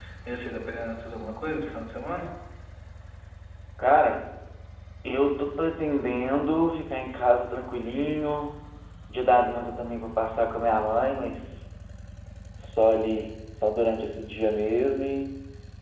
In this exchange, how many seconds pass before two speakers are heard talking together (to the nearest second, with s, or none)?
none